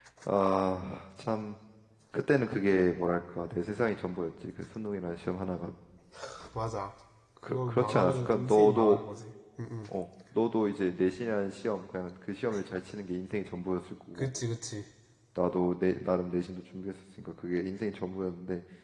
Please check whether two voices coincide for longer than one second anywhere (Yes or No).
Yes